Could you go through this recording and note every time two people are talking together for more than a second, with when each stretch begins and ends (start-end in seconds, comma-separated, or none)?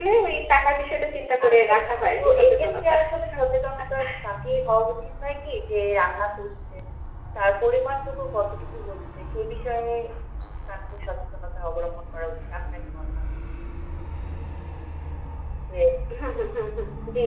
1.5-2.9